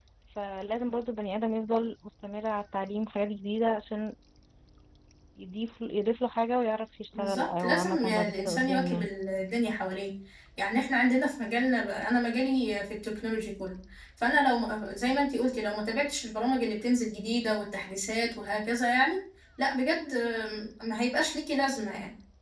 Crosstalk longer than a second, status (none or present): present